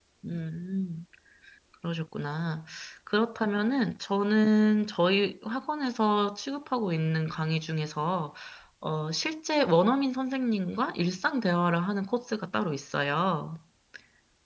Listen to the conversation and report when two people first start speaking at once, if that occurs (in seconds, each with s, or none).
none